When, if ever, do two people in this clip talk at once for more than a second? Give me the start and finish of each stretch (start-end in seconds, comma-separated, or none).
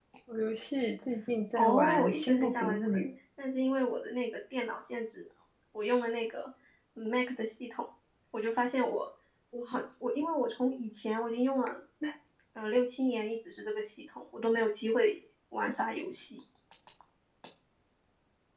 1.6-3.0